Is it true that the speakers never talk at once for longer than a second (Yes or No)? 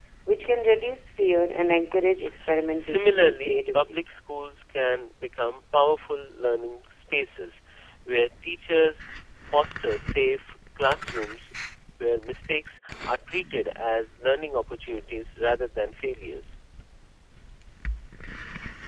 No